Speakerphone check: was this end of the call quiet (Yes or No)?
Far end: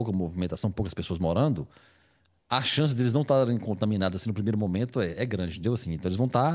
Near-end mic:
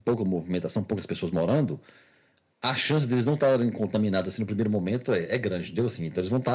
Yes